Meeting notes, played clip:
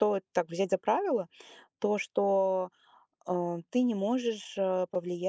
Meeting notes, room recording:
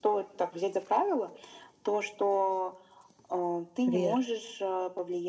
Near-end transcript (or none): верно.